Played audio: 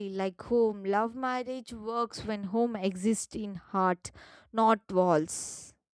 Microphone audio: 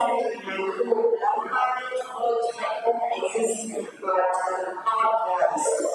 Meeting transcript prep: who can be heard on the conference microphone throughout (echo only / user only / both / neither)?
echo only